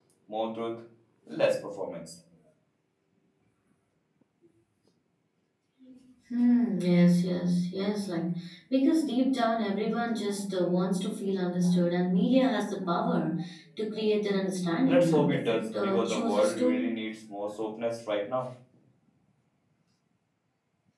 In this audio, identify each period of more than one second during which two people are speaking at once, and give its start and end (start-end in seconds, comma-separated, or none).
14.8-16.9